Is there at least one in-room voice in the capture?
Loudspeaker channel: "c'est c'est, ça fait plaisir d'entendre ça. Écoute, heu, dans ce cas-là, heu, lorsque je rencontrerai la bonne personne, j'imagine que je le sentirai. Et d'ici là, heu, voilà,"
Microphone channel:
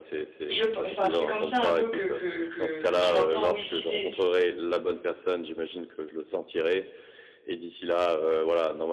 Yes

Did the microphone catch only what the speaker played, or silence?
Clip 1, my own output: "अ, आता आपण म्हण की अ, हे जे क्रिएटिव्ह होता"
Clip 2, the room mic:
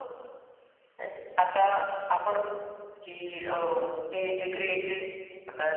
Yes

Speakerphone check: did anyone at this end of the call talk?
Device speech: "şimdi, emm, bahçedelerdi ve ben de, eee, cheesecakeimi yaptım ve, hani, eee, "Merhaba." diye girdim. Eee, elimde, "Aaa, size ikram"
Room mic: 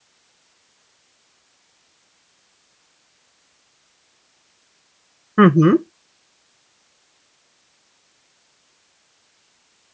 Yes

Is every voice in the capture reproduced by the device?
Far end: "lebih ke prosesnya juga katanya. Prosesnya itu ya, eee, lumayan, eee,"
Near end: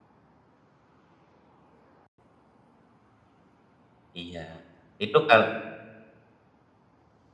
No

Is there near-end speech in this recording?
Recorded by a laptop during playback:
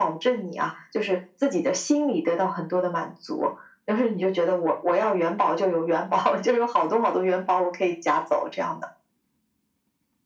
No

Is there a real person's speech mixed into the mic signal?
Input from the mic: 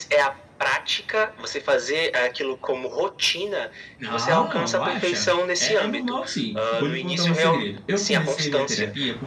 Yes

